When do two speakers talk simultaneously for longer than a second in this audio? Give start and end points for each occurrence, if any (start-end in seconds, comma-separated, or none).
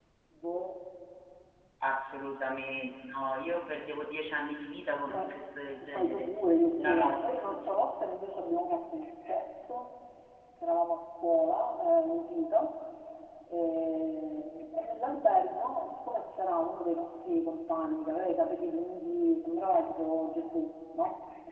none